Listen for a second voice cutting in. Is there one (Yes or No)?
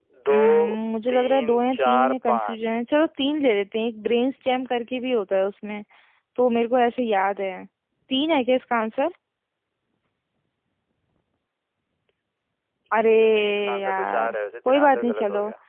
Yes